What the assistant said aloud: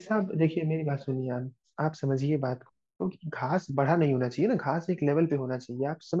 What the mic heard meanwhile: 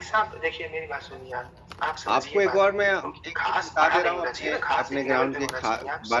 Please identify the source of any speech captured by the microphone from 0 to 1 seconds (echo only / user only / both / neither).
echo only